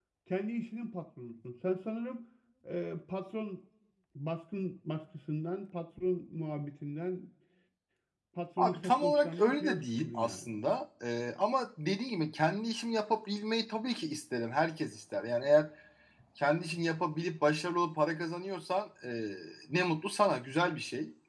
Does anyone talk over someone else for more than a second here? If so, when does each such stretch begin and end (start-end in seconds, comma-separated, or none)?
8.6-10.5